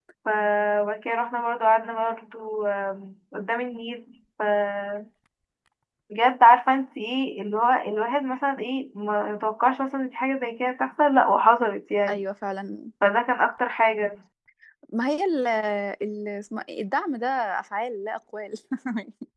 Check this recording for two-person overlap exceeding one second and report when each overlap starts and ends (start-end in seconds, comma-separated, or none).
none